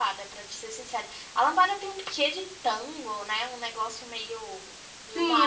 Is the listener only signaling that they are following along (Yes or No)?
No